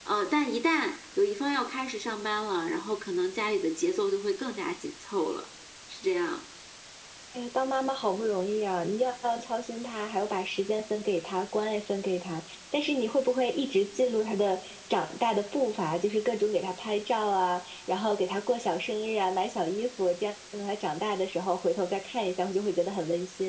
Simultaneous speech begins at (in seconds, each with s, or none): none